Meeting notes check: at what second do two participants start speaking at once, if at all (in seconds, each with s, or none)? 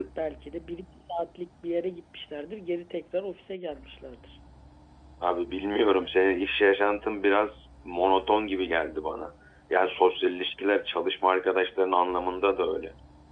none